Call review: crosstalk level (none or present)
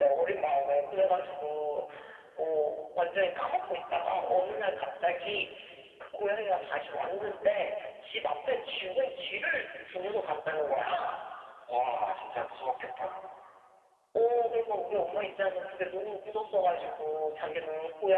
none